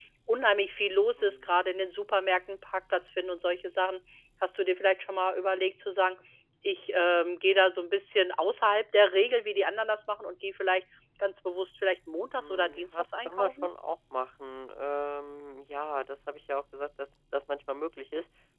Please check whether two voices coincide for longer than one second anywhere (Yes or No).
Yes